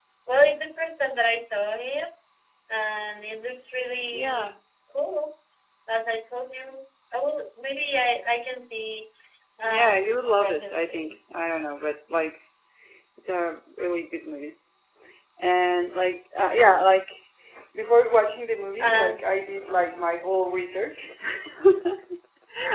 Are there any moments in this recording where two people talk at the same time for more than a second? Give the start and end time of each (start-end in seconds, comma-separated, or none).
9.7-11.1